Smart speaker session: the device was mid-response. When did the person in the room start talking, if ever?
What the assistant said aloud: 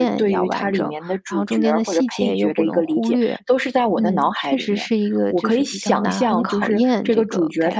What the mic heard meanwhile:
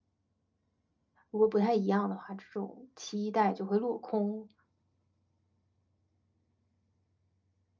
1.3 s

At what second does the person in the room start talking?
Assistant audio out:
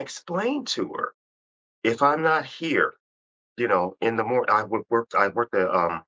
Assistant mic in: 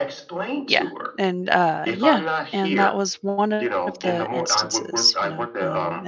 0.6 s

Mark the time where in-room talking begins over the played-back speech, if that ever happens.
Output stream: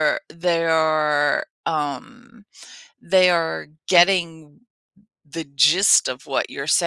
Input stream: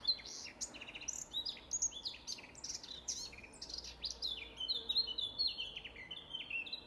none

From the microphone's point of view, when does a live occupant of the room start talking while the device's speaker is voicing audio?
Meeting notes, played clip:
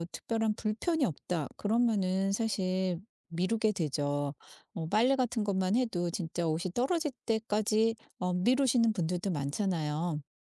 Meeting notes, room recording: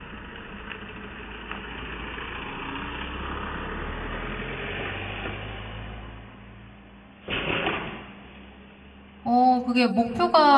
9.2 s

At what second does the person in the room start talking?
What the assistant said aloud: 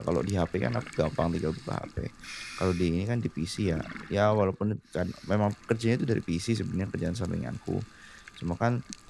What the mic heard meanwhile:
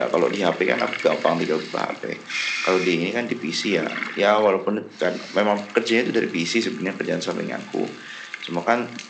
none

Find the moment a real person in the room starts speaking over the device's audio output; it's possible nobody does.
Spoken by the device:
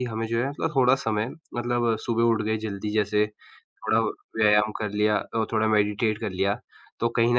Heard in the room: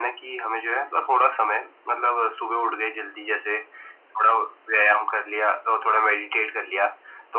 none

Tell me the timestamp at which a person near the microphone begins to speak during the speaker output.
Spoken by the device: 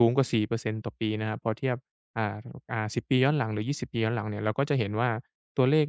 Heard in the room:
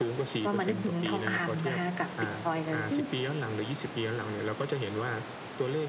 0.4 s

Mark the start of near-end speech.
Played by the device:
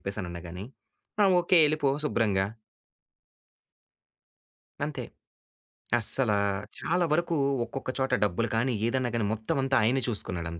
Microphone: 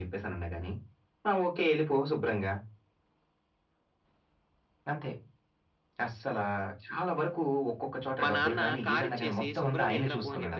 8.2 s

